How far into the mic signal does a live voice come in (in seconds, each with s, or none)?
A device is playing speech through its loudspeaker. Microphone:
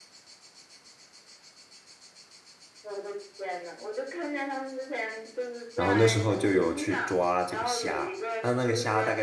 5.7 s